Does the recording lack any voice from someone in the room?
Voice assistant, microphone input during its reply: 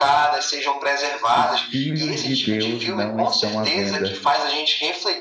No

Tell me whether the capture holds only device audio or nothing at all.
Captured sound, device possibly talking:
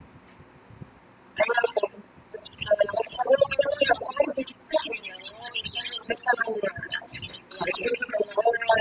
Yes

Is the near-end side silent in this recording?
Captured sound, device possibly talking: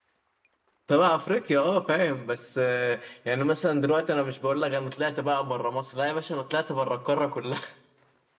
No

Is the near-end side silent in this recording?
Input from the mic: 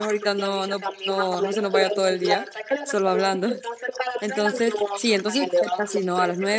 No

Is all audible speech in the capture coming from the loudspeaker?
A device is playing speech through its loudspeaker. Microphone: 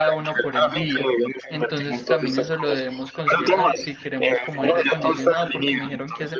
No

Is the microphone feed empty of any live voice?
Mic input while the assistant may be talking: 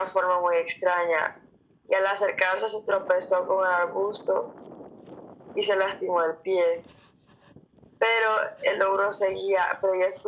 Yes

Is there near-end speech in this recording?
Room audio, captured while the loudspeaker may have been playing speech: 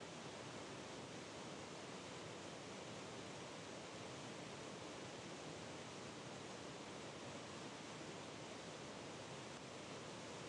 No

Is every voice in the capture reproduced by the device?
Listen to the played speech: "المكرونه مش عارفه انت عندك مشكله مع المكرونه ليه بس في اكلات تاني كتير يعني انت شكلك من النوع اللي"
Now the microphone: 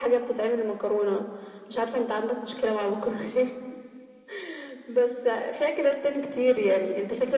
Yes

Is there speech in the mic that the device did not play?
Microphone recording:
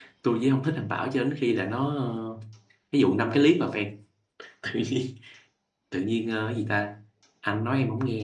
Yes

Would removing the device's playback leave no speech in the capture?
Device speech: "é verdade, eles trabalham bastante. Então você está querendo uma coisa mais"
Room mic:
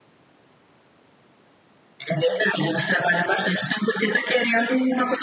Yes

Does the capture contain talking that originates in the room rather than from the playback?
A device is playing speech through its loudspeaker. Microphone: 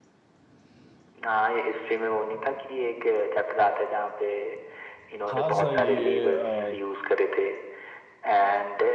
Yes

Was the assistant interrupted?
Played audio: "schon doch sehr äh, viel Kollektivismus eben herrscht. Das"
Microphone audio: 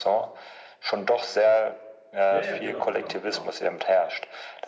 Yes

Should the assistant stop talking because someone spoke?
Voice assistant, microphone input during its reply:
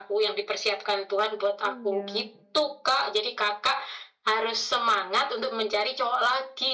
Yes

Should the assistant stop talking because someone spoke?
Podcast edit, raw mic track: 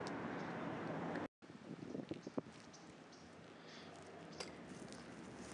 No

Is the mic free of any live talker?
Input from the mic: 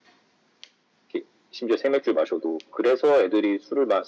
Yes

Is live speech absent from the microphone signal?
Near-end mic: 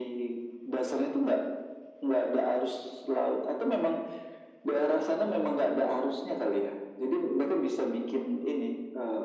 Yes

